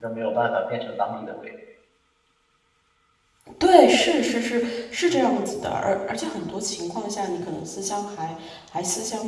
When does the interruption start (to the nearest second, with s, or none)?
none